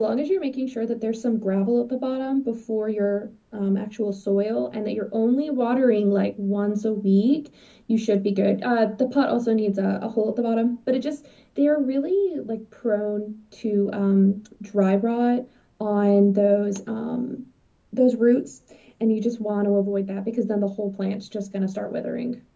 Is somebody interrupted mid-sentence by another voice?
No

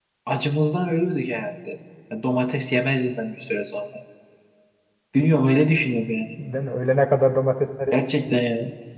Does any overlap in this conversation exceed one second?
No

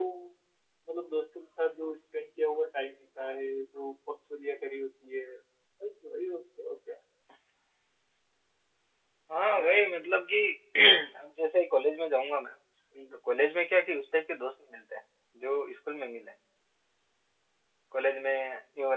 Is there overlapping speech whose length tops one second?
No

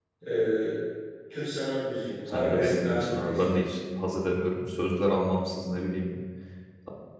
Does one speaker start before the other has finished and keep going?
Yes, from 2.3 s

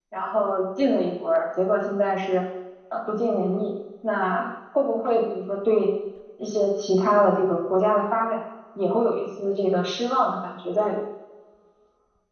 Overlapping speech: No

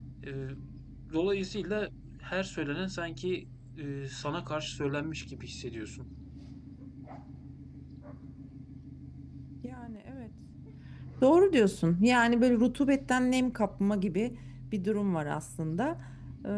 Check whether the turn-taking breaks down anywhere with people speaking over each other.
No

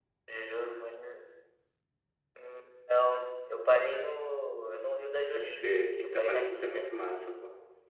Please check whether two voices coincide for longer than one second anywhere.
Yes, from 5.3 s

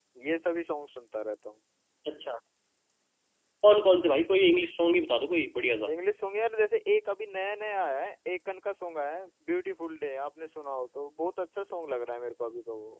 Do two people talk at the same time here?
No

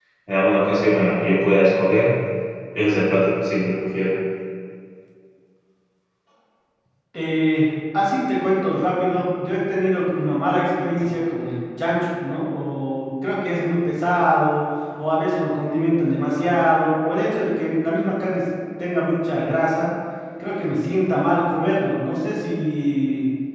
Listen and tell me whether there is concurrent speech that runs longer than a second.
No

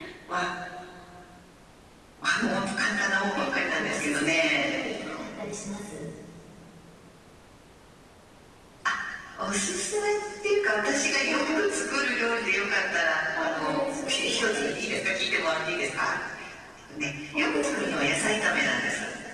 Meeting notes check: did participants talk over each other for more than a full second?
Yes, from 3.3 s

